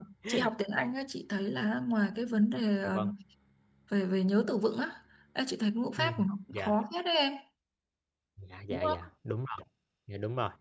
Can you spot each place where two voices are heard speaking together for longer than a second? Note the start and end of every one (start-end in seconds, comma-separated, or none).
none